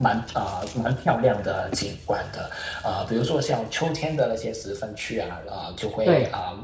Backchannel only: Yes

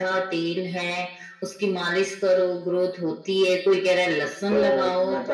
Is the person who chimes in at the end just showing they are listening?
No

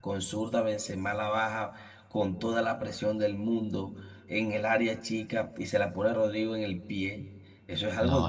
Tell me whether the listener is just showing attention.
Yes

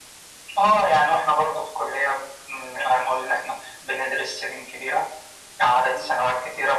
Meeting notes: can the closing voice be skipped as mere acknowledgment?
Yes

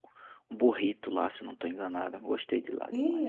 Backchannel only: No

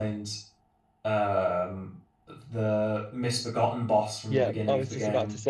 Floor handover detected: Yes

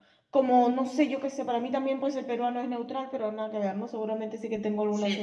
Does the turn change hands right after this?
Yes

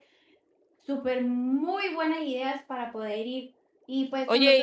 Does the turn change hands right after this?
No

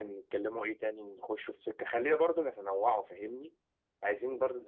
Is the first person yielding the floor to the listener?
No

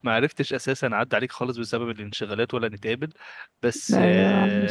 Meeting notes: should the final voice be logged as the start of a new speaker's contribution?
No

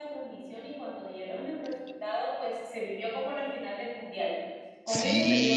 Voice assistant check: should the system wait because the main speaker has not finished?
No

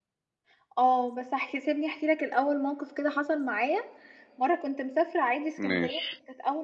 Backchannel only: Yes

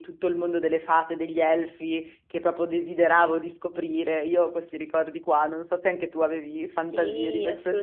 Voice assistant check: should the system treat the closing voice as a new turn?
Yes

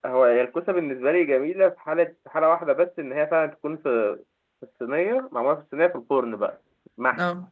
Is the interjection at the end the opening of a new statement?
No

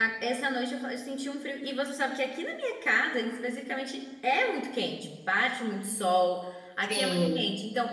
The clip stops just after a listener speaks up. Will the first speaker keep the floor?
Yes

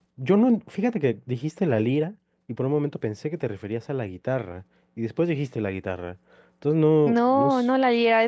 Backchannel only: No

